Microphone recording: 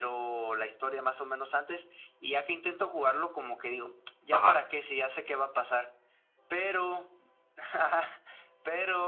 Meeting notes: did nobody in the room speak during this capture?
No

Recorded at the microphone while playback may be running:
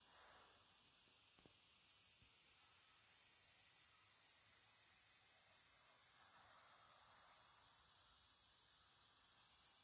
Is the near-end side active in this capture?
No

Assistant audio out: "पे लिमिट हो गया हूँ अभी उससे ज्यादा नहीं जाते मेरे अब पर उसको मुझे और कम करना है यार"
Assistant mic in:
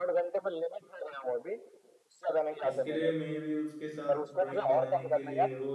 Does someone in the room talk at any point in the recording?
Yes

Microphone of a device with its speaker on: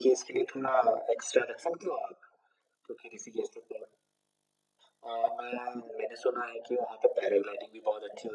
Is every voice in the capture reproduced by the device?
Yes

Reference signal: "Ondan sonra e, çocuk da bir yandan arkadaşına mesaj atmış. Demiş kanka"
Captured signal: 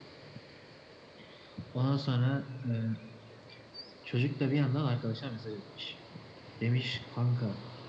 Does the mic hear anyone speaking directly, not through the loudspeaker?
No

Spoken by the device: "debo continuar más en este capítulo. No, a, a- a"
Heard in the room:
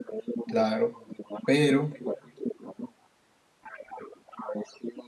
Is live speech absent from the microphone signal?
No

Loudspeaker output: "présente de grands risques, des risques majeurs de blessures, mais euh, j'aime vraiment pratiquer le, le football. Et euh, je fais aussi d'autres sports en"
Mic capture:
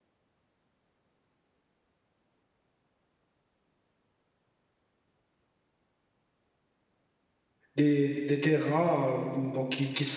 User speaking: Yes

